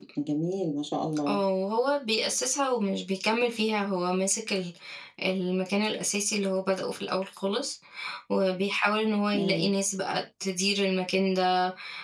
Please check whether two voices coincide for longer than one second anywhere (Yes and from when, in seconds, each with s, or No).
No